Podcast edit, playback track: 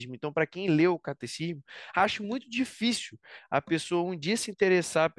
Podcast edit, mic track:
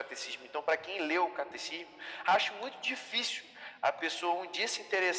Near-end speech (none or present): none